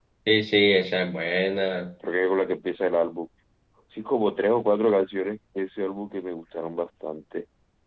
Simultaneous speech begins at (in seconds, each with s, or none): none